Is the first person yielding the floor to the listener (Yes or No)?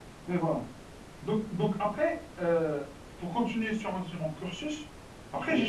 No